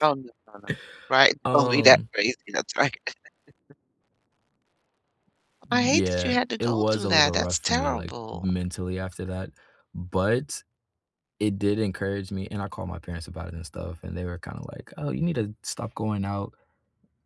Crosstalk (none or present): present